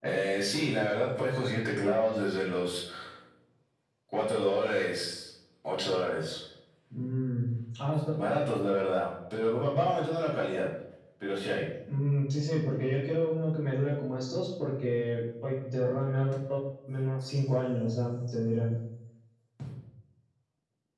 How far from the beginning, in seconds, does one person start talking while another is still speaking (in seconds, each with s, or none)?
none